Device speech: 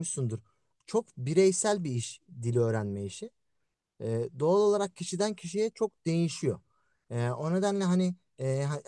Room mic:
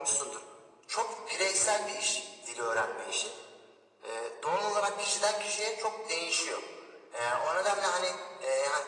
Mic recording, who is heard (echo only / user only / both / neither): echo only